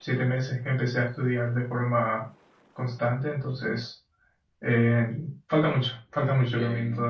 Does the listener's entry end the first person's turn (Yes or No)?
Yes